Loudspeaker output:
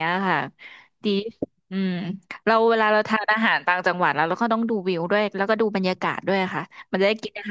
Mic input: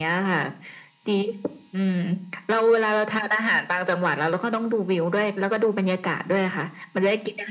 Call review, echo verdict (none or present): present